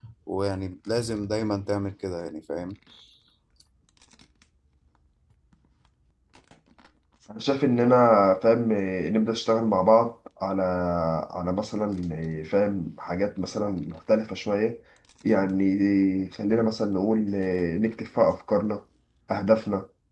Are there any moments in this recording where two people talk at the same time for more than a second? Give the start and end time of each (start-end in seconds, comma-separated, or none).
none